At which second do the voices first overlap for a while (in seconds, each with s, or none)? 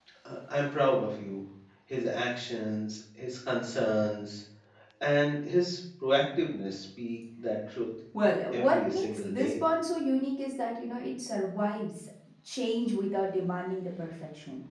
8.1 s